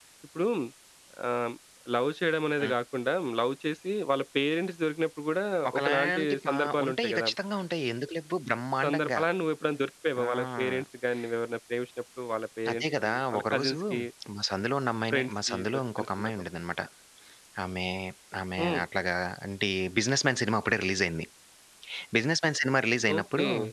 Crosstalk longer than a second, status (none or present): present